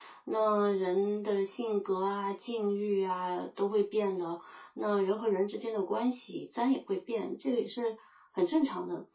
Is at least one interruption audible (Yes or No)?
No